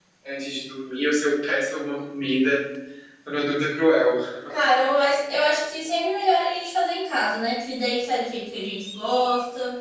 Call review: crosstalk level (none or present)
none